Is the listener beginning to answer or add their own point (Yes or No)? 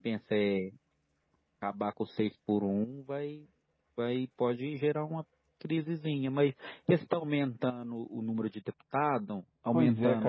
Yes